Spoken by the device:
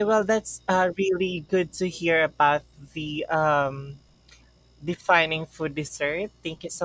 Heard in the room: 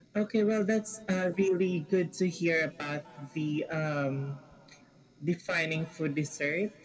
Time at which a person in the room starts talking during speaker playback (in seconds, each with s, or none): none